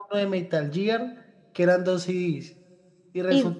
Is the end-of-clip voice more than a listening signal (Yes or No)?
No